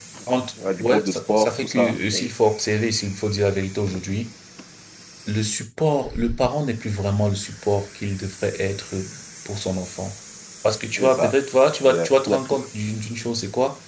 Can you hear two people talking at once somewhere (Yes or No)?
Yes